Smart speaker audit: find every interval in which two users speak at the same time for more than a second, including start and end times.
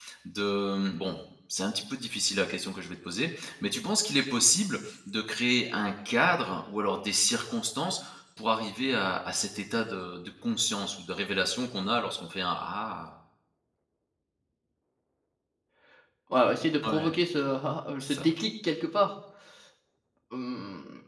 none

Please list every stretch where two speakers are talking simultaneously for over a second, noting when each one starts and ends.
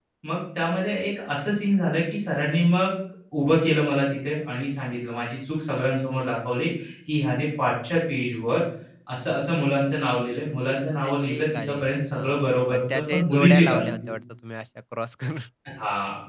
11.0-14.1

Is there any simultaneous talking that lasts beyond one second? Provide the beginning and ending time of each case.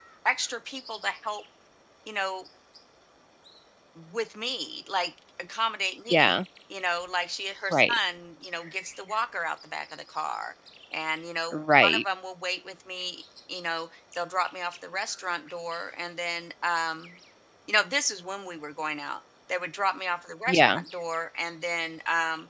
none

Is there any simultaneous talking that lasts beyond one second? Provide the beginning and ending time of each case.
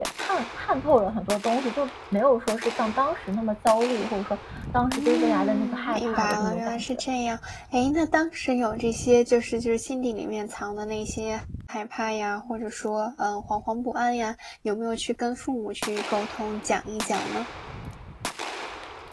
4.8-6.8

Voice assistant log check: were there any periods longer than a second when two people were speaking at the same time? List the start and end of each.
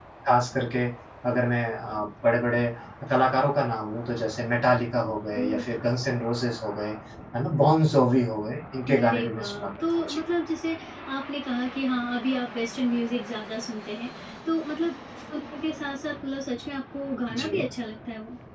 8.9-10.2

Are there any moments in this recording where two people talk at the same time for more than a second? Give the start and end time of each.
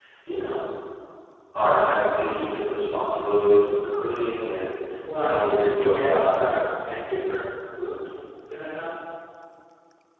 5.2-6.5

